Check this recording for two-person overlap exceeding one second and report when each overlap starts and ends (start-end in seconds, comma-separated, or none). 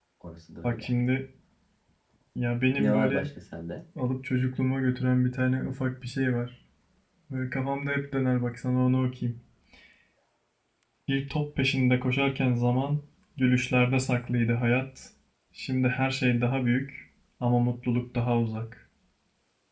none